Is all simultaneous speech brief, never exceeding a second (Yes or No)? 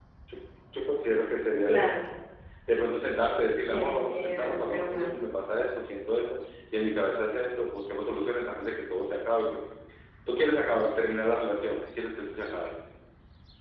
No